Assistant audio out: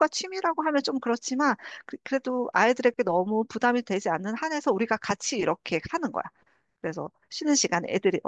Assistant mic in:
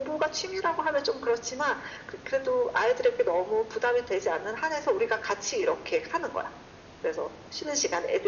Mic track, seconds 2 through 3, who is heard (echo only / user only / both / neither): echo only